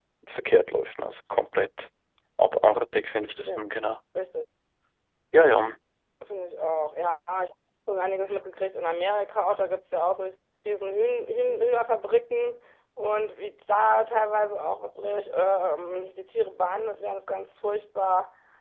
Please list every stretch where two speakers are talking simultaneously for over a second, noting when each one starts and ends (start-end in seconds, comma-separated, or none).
none